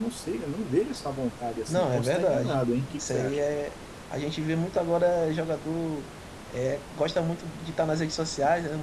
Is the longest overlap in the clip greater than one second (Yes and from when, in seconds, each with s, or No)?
Yes, from 1.7 s